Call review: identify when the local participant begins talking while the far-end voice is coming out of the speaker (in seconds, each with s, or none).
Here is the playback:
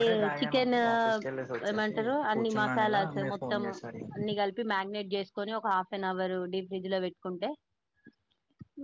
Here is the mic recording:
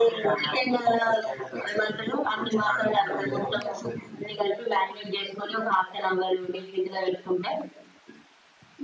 none